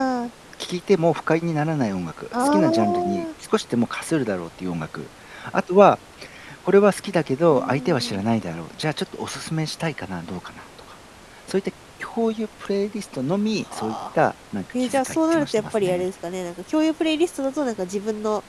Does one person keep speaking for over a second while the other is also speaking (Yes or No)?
Yes